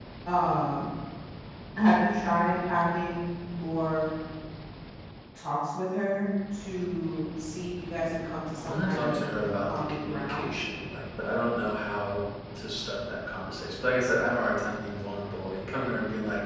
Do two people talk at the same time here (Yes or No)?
Yes